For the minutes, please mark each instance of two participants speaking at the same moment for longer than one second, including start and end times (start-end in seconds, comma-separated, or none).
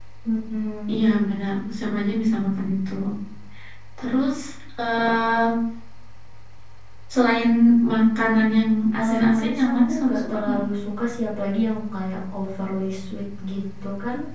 9.0-10.6